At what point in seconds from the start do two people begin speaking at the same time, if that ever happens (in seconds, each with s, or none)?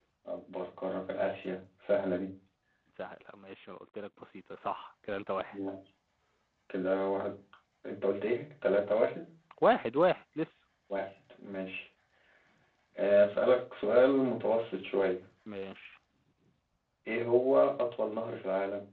none